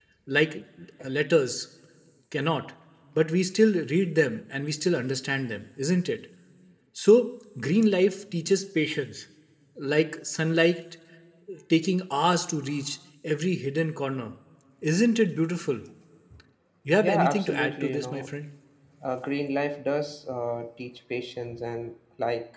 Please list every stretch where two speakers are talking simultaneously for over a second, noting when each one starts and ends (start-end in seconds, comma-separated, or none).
17.0-18.3